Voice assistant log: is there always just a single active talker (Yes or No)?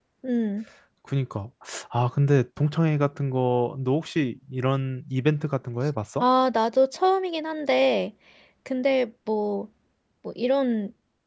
Yes